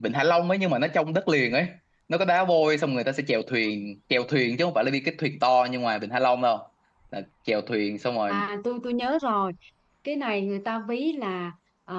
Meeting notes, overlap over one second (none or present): none